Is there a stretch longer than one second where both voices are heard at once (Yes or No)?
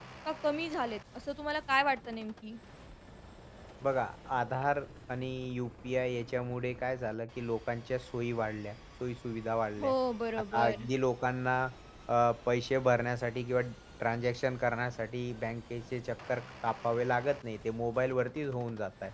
No